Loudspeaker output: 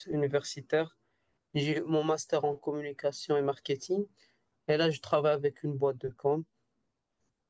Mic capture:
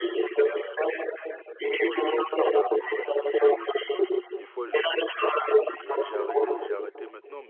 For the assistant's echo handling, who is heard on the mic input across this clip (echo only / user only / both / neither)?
both